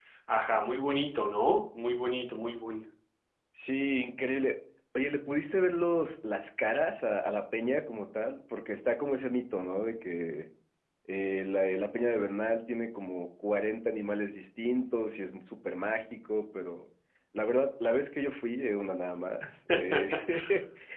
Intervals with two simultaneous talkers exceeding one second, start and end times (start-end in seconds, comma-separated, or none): none